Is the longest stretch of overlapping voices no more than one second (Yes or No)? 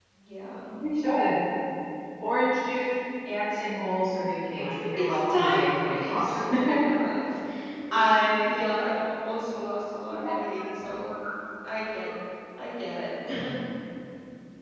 No